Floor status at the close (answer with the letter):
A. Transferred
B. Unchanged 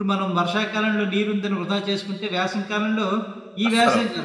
B